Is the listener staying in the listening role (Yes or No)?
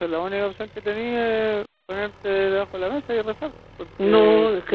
No